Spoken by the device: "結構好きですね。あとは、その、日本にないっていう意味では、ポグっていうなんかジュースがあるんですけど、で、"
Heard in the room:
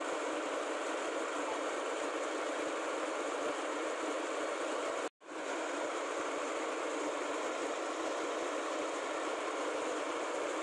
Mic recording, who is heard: neither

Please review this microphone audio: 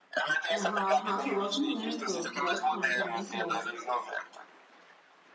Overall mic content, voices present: both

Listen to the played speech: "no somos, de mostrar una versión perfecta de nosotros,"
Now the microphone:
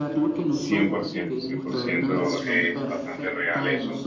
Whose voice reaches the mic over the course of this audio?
both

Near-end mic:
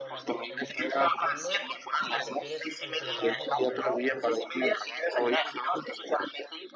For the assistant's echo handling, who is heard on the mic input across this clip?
both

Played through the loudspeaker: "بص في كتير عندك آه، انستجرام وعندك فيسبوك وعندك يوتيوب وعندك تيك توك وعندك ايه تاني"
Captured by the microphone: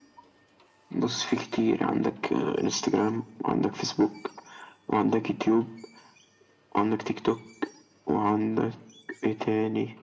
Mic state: echo only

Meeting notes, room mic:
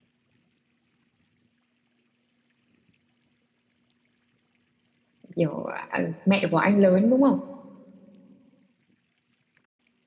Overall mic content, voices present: user only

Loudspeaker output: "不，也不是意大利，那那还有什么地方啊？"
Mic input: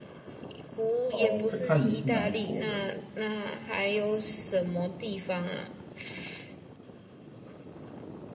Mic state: both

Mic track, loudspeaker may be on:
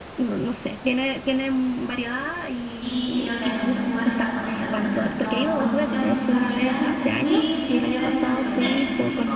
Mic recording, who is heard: both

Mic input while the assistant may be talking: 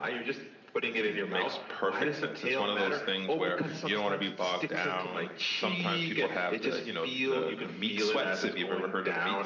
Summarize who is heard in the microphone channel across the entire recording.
both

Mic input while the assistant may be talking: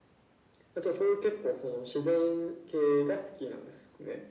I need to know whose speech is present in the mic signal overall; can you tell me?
echo only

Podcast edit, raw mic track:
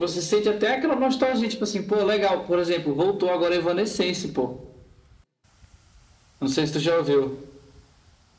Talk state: echo only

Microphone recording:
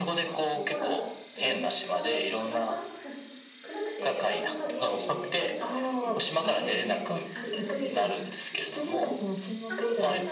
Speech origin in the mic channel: both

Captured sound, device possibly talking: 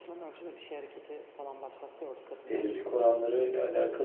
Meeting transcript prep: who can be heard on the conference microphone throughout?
both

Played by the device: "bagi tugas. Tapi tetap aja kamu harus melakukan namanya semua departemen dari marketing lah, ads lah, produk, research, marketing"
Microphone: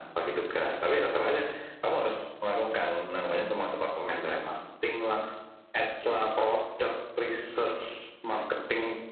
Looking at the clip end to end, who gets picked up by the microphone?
echo only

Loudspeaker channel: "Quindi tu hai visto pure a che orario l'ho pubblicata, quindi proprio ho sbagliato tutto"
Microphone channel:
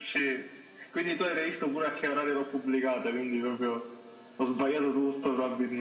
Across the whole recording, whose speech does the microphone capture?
echo only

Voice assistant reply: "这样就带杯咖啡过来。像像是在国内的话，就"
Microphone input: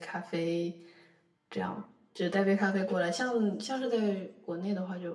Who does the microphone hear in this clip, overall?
echo only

